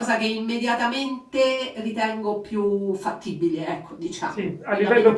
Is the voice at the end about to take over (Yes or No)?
Yes